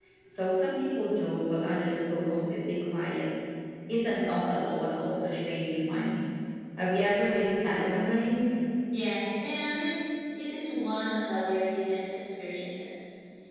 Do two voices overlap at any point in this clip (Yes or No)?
No